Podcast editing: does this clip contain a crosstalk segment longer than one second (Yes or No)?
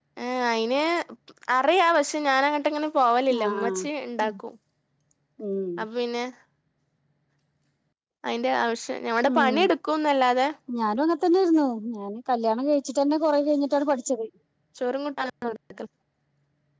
No